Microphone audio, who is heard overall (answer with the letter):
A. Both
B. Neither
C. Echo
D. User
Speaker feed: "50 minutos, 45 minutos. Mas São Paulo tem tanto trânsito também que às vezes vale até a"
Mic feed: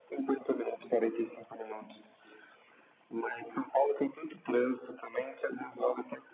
C